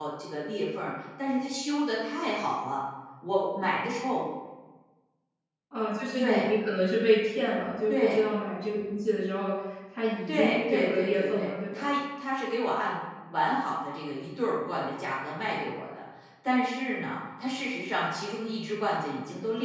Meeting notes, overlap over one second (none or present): present